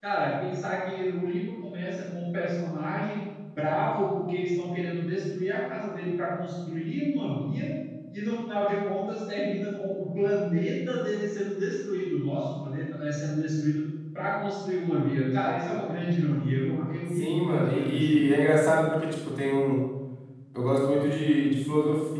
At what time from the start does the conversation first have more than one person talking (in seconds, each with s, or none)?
17.1 s